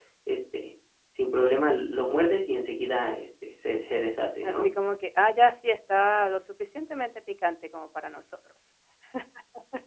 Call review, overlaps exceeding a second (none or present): none